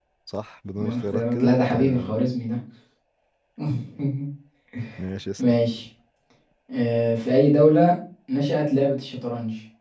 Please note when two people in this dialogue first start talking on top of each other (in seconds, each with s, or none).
0.7 s